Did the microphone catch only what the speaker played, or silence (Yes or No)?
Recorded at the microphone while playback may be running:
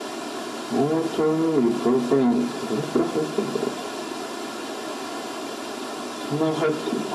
Yes